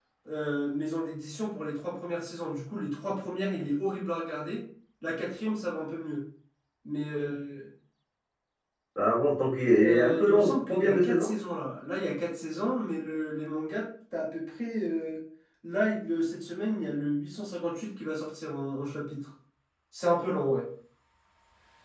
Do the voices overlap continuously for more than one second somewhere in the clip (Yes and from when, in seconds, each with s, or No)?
Yes, from 9.8 s